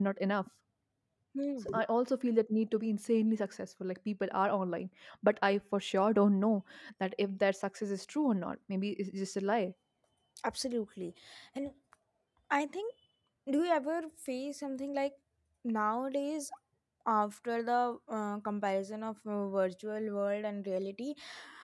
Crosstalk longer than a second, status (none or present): none